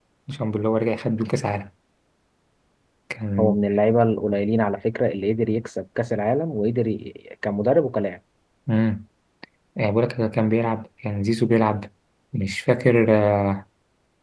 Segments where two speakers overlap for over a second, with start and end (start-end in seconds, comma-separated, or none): none